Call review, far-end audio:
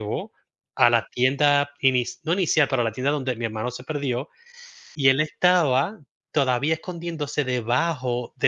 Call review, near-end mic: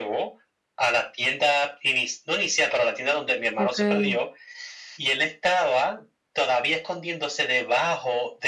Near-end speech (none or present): present